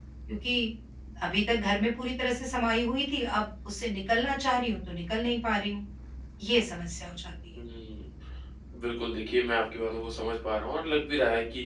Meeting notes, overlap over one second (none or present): none